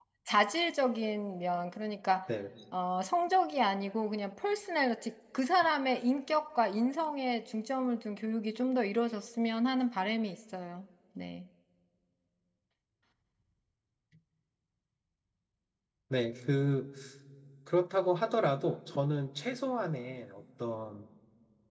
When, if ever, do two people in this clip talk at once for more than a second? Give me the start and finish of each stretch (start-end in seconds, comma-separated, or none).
none